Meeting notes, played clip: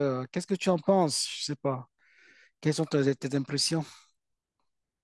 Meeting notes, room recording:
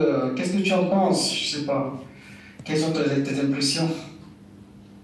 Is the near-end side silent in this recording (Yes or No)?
Yes